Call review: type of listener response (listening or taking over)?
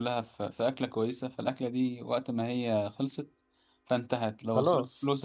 listening